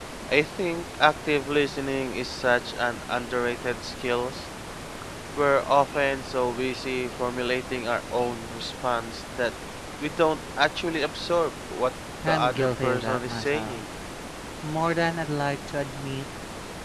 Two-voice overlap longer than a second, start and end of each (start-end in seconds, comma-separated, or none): 12.3-13.8